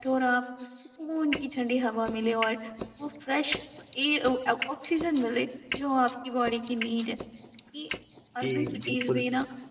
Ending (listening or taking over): taking over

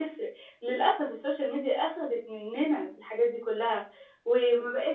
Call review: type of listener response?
listening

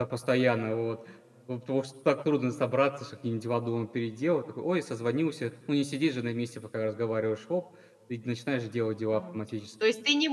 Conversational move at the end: taking over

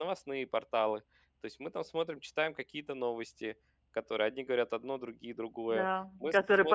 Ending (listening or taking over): taking over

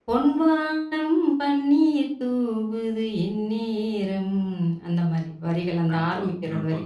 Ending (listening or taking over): taking over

